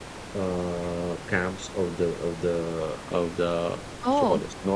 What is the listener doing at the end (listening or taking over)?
listening